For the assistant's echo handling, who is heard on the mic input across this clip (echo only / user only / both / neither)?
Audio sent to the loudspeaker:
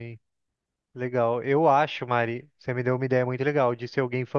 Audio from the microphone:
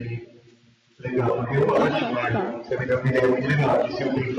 both